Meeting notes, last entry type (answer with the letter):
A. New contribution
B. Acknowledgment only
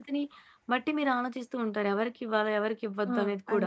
A